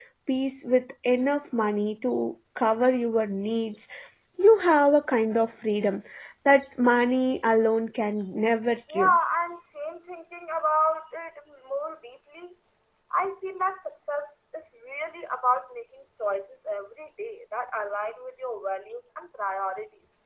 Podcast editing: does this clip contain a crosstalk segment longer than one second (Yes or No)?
No